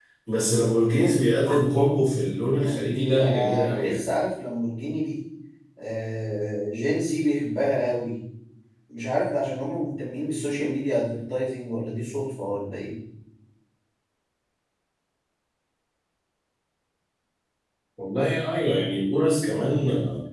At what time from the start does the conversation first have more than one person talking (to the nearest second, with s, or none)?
3 s